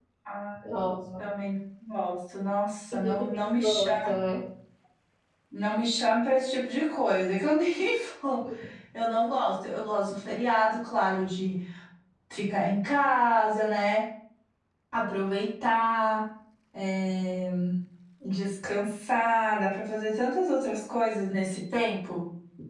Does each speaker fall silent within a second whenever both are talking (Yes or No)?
No